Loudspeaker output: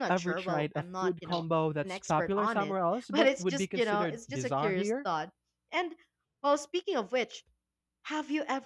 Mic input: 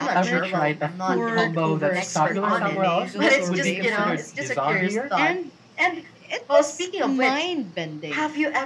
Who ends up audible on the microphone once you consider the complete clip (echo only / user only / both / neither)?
both